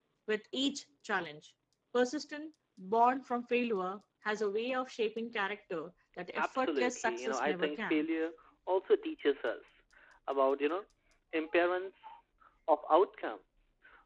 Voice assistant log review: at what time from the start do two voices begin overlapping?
6.4 s

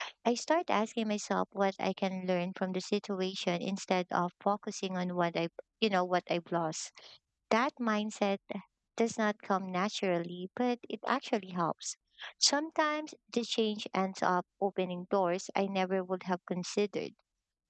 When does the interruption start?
none

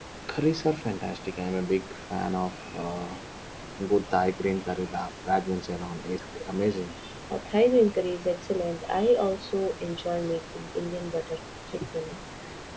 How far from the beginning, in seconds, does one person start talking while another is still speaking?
none

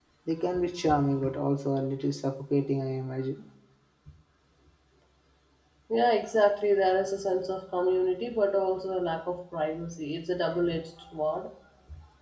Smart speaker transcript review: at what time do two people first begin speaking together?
none

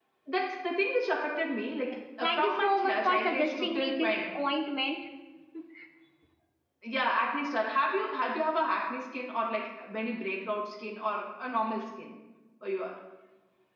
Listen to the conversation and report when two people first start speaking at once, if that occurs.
1.8 s

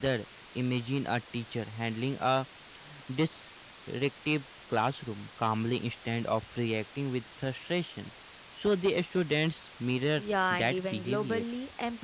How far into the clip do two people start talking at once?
10.2 s

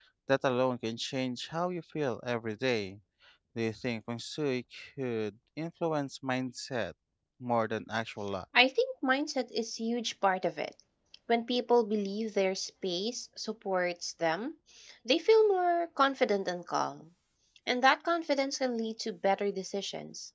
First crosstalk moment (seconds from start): none

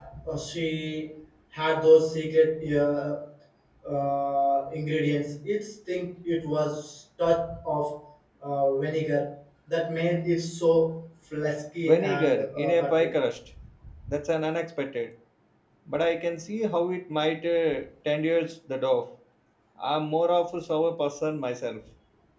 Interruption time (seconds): 11.8 s

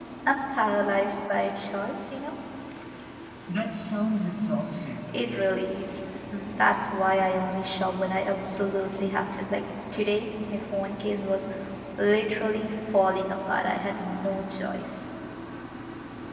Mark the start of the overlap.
none

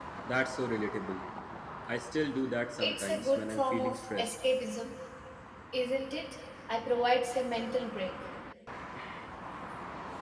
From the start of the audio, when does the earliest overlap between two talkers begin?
2.8 s

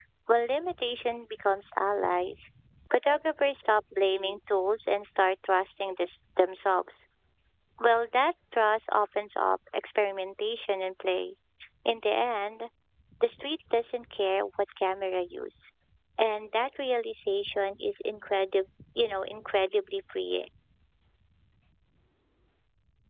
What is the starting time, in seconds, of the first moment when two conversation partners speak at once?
none

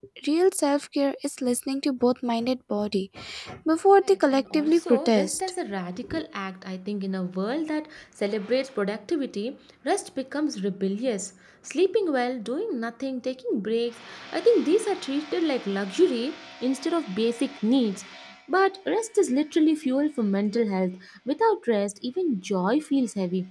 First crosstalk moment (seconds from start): 4.0 s

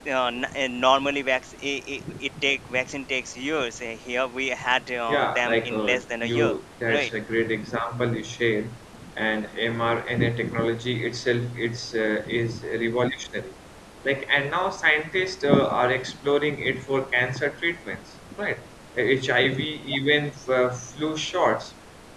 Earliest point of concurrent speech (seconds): 5.1 s

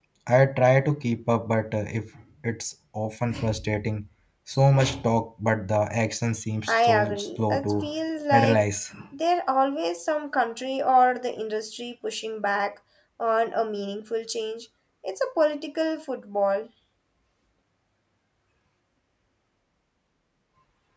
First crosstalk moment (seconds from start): 6.7 s

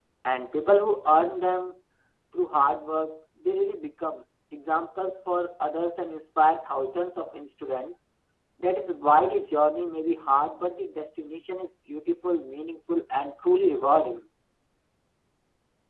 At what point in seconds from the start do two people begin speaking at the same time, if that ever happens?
none

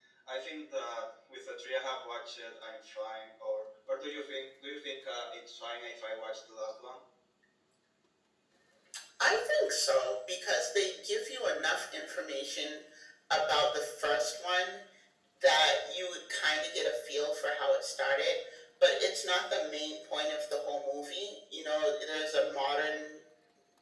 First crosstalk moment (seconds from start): none

